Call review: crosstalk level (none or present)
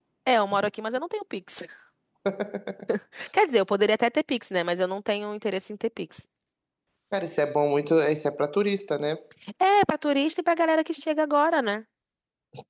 none